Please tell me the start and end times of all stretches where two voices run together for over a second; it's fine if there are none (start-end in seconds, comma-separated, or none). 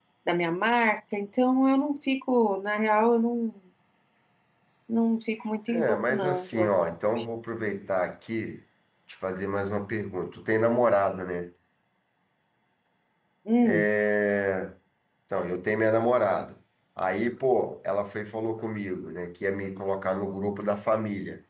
5.7-7.0